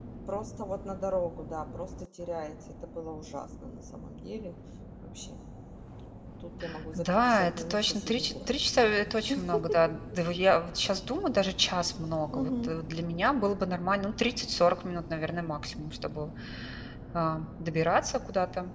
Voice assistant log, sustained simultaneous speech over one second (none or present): present